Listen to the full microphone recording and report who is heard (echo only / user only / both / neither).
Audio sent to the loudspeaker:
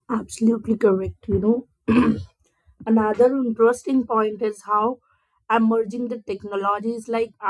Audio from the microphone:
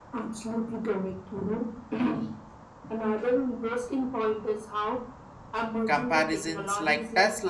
both